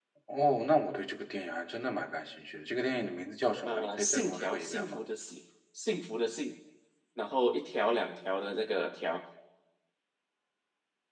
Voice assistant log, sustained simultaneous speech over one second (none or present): present